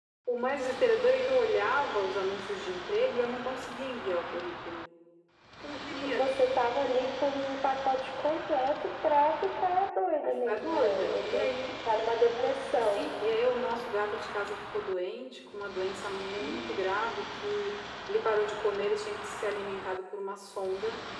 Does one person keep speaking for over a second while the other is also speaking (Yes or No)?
Yes